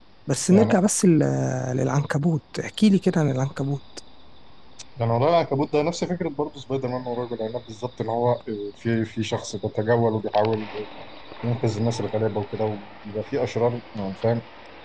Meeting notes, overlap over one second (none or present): none